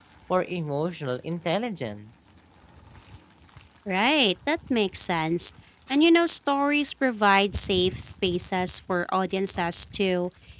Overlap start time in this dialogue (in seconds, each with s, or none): none